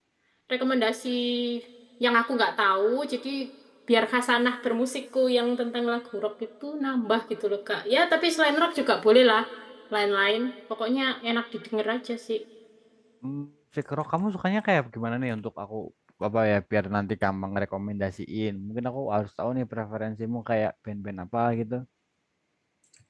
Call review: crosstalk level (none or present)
none